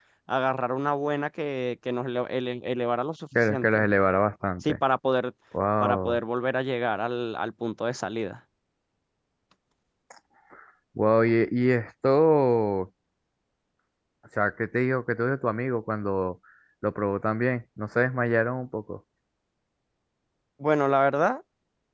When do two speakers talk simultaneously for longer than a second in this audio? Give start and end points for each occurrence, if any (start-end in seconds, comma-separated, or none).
none